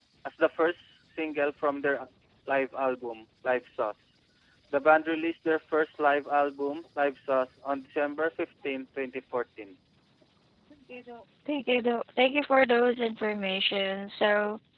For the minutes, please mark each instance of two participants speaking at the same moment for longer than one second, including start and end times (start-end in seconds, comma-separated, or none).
none